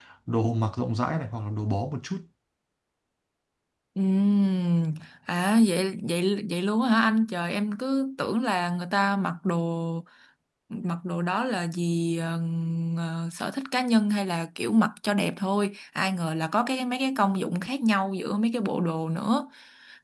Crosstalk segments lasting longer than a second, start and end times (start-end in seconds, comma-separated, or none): none